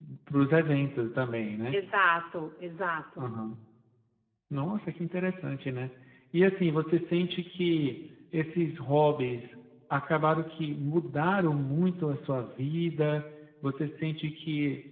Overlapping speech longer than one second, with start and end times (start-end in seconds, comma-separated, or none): none